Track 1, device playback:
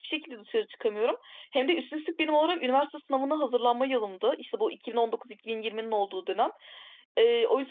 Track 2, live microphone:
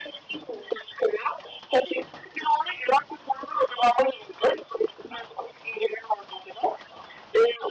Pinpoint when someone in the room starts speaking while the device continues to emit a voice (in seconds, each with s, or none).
none